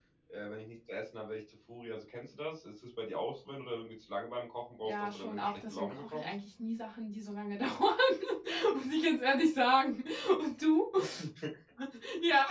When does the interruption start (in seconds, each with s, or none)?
4.8 s